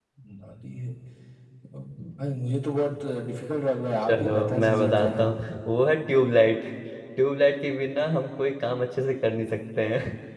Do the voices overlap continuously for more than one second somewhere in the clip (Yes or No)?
Yes